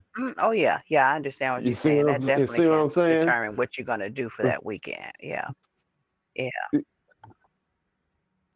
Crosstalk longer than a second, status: present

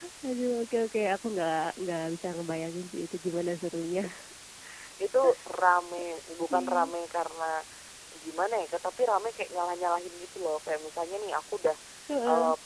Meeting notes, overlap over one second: none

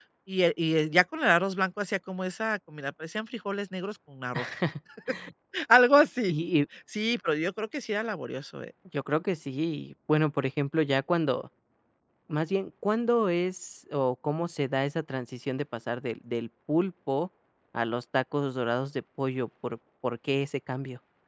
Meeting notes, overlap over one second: none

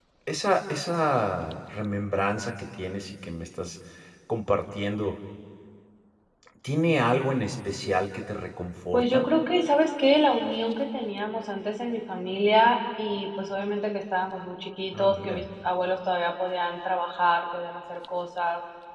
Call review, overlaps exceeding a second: none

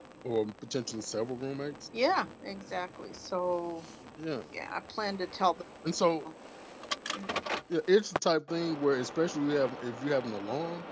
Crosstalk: none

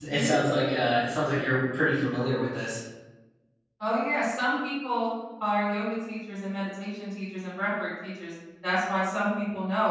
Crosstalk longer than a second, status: none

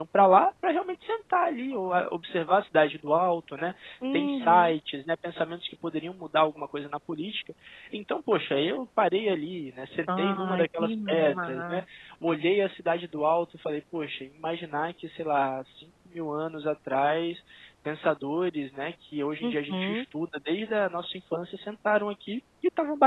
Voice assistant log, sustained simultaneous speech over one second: present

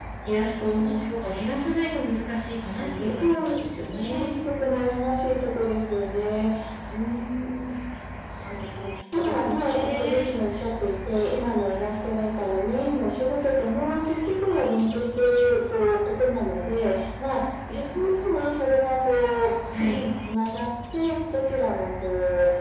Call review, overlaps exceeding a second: present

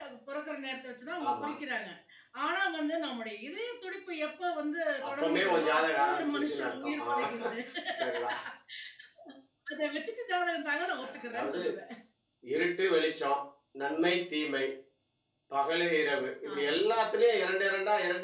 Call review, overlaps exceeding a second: present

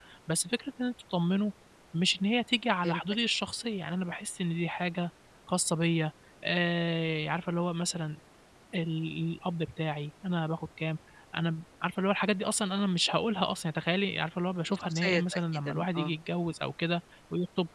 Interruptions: present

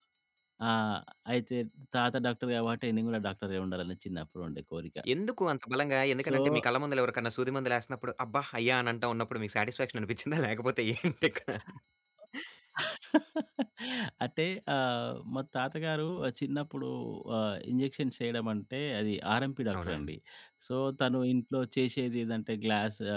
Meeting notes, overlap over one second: none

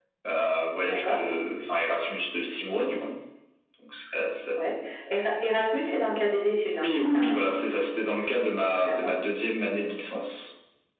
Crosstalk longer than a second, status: none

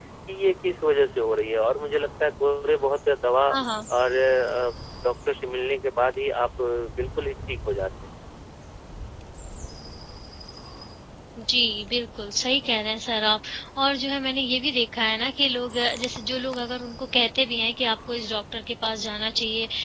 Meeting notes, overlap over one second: none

